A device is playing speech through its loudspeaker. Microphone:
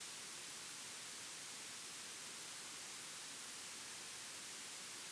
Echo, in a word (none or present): none